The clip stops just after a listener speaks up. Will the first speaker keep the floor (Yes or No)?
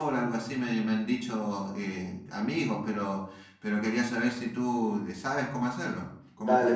No